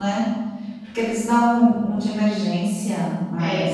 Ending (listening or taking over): taking over